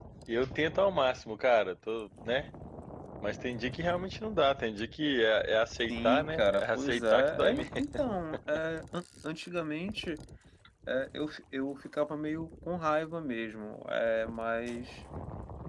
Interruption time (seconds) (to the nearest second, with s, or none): 6 s